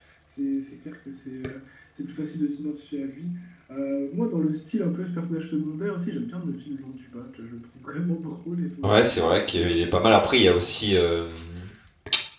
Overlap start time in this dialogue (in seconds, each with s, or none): 8.8 s